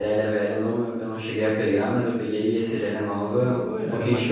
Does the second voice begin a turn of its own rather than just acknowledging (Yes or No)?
Yes